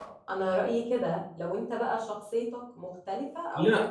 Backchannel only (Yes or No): No